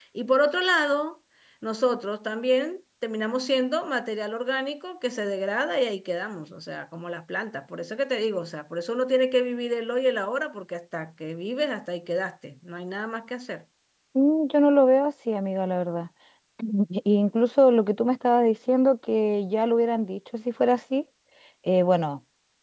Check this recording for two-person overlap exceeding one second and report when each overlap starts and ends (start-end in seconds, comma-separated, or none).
none